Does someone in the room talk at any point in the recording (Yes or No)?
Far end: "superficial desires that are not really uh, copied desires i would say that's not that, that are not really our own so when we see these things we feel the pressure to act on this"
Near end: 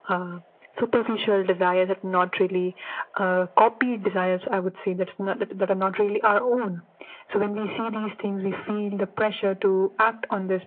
No